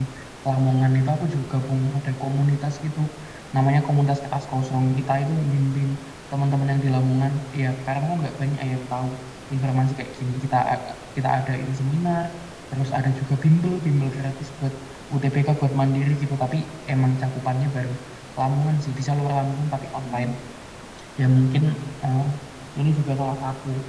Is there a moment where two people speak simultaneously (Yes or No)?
No